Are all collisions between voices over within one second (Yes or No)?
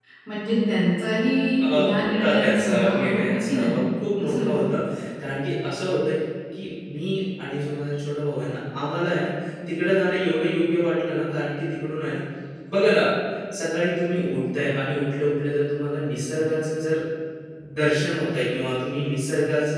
No